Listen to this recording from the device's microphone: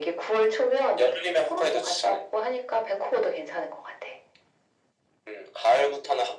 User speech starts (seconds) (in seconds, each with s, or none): none